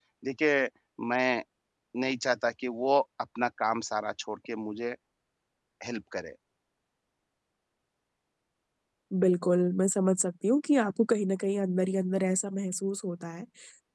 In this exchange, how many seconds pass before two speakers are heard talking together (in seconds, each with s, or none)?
none